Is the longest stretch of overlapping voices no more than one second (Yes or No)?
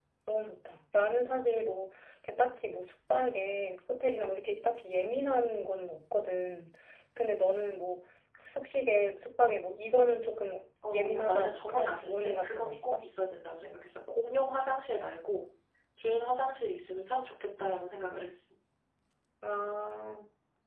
No